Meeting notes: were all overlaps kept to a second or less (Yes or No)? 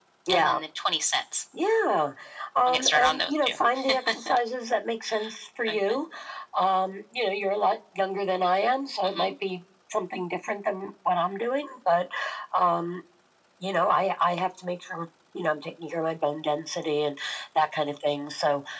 No